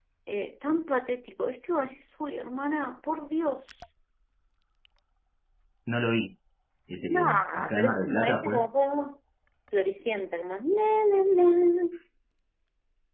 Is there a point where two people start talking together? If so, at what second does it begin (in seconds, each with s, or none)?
7.1 s